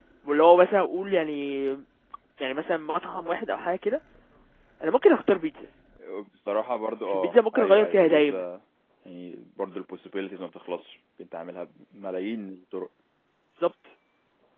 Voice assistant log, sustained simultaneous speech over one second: present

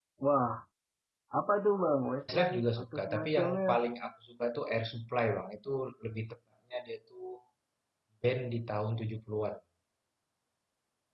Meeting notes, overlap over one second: present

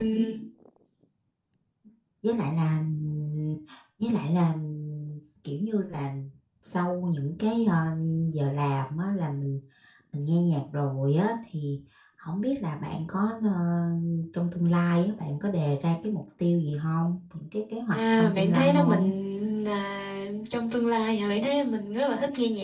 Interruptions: present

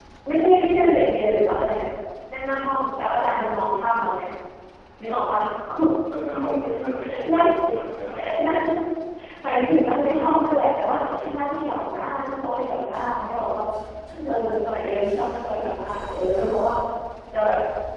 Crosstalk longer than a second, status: none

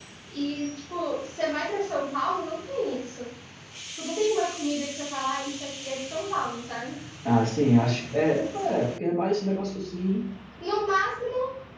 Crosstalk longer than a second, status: none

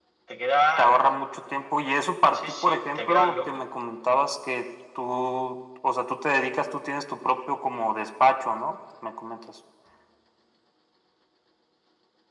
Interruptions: present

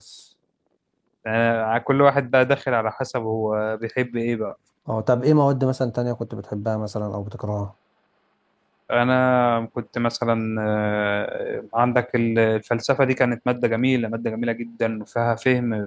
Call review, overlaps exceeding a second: none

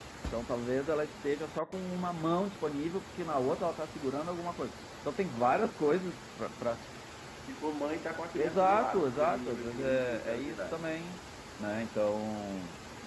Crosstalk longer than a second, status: present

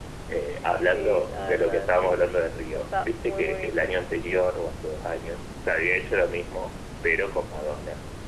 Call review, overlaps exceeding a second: present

